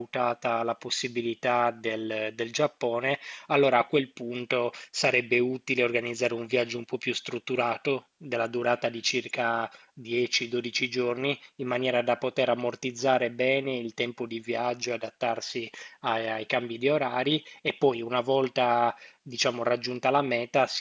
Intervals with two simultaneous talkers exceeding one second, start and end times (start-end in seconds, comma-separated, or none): none